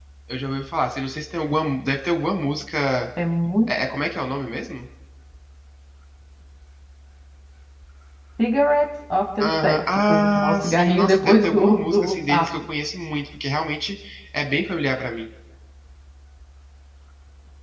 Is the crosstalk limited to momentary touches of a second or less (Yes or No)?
No